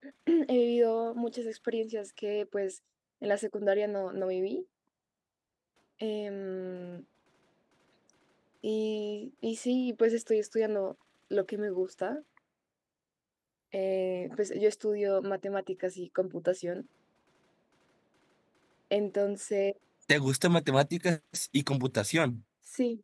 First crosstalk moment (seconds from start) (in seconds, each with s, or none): none